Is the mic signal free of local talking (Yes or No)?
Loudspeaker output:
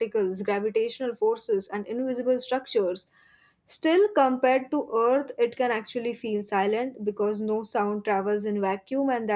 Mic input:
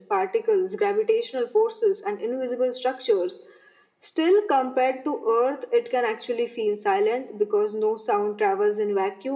Yes